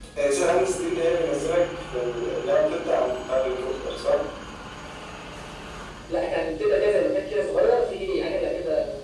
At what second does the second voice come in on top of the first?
none

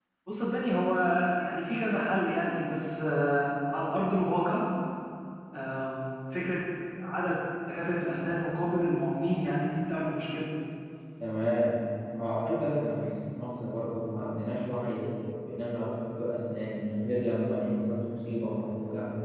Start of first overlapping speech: none

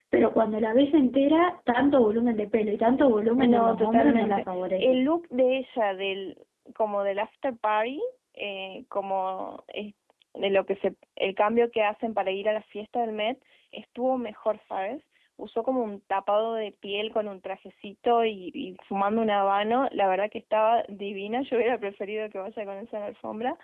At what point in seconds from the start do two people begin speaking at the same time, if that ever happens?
3.4 s

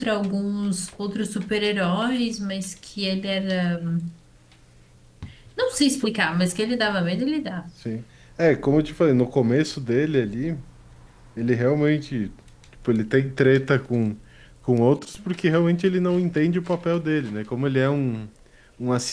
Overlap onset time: none

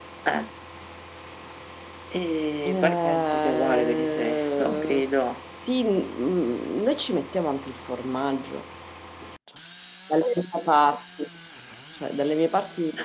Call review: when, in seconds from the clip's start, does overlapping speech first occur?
2.6 s

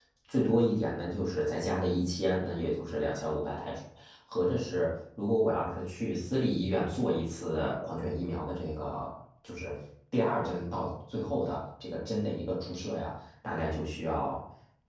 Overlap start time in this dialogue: none

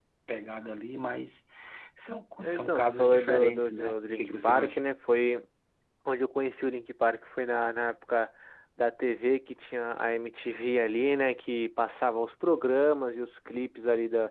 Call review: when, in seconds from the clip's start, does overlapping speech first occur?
2.4 s

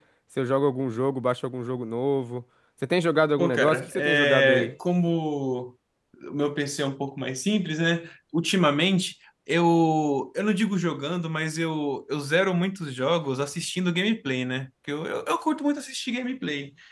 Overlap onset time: 3.4 s

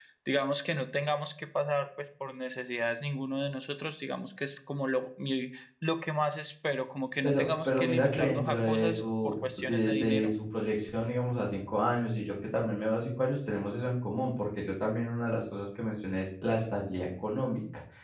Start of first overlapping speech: 7.2 s

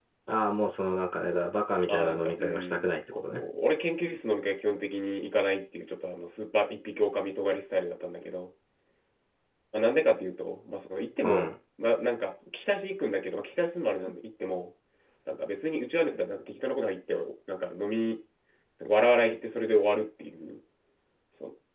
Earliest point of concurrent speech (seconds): 1.9 s

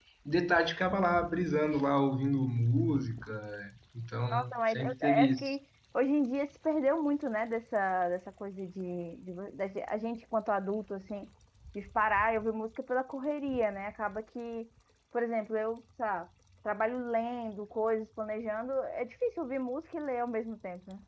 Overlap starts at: 4.3 s

